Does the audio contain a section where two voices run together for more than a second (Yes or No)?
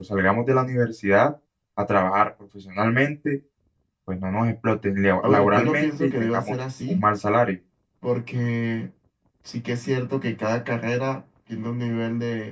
Yes